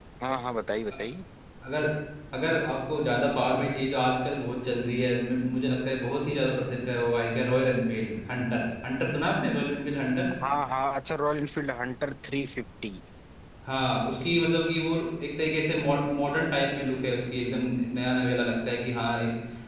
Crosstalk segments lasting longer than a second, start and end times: none

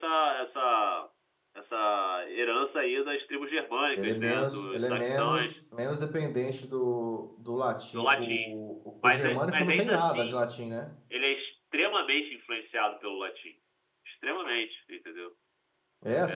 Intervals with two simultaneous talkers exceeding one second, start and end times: 4.0-5.5, 9.0-10.4

